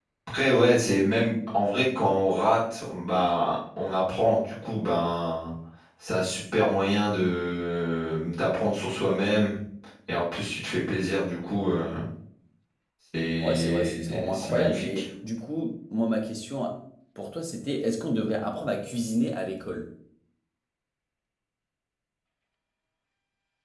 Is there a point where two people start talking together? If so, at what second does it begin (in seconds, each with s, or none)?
13.4 s